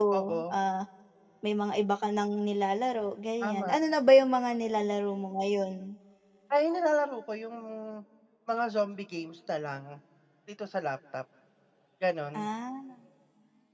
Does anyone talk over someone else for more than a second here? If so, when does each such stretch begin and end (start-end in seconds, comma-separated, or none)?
none